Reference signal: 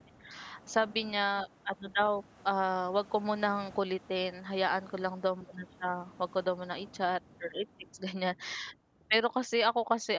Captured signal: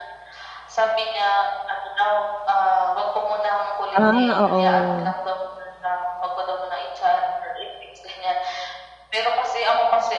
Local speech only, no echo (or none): Ah, oo.